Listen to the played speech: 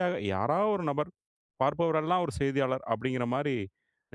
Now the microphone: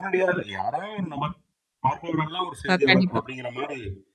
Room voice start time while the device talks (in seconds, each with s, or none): 2.7 s